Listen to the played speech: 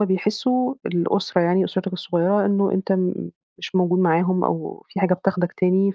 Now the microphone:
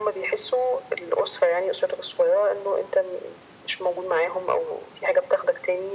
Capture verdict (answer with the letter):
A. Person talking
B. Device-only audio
B